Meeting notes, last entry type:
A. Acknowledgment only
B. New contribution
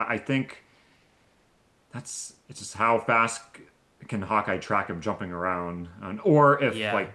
A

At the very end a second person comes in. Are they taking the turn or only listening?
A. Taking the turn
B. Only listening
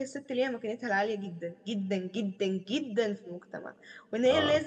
B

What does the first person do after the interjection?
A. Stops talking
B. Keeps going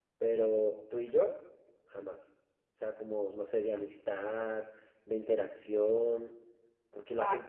B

